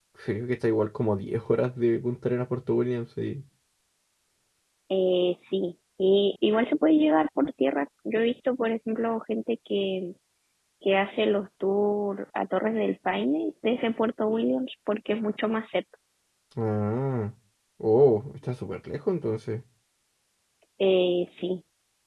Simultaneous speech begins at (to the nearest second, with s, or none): none